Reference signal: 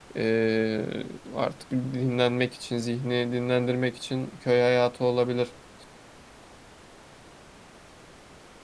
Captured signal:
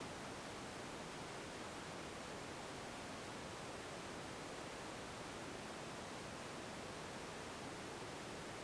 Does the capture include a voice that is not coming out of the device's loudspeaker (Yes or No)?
No